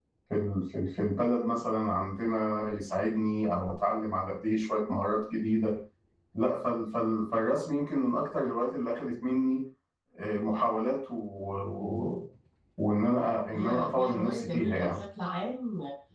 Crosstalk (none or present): present